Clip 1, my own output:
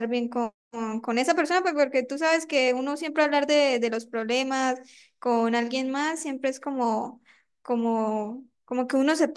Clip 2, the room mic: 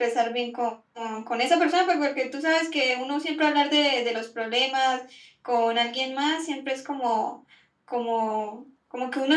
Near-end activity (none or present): none